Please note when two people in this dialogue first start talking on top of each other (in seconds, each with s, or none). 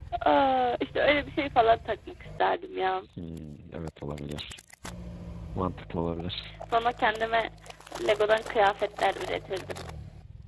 none